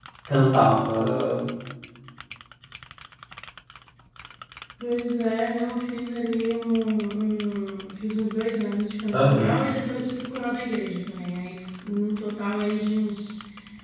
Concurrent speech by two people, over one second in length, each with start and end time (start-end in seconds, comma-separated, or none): none